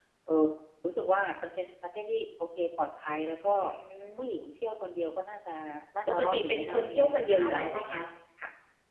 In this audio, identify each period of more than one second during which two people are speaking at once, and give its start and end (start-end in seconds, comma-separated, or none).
6.1-8.0